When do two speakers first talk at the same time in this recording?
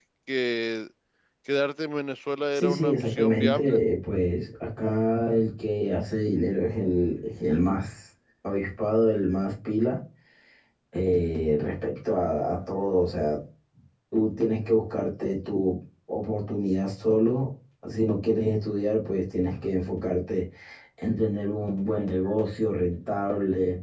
2.5 s

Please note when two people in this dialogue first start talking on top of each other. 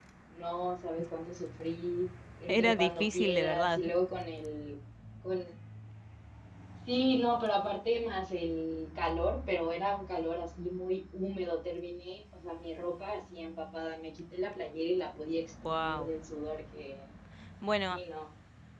2.5 s

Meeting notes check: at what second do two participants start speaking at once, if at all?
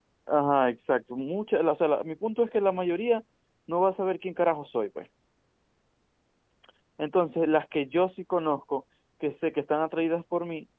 none

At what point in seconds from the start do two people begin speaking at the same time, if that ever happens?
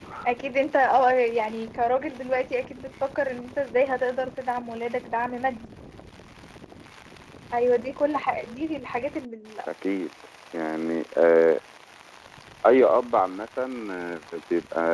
none

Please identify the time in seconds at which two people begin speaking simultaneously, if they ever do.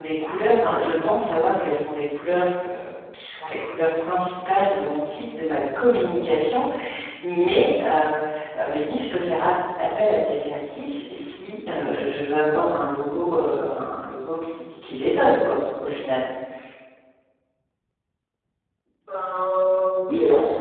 none

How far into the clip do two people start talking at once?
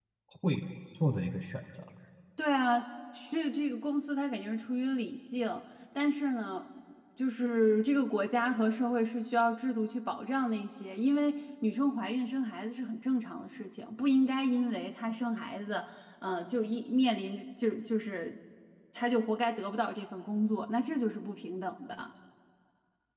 none

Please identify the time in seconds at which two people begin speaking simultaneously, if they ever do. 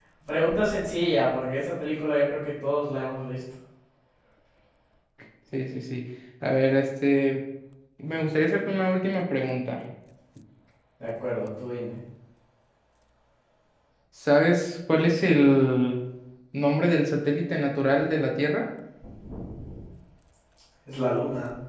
none

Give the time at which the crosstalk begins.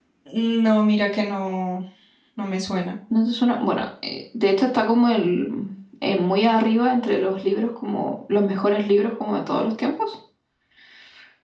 none

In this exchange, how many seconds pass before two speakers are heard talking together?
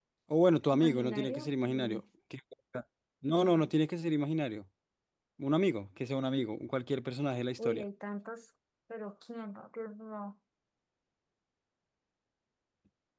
0.7 s

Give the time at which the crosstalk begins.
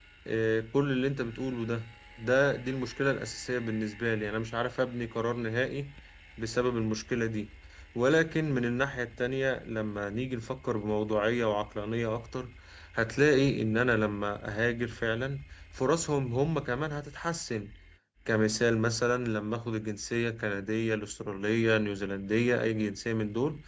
none

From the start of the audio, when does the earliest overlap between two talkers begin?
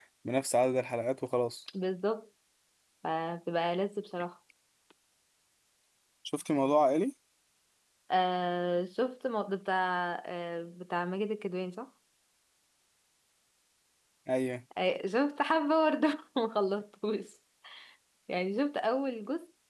none

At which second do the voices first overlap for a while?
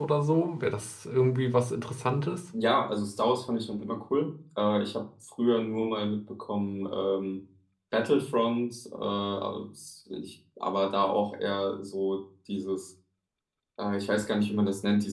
none

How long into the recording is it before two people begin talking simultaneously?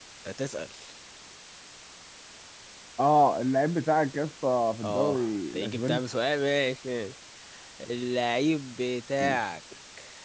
4.8 s

